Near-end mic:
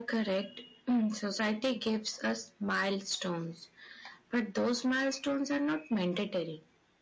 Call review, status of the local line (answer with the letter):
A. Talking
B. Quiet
B